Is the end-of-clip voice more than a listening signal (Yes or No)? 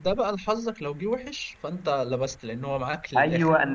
Yes